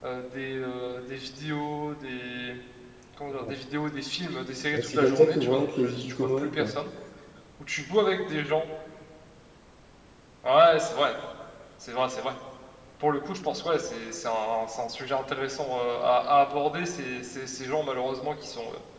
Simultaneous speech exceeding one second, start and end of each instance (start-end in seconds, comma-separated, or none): 4.7-6.7